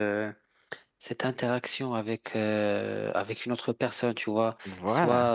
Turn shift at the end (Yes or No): No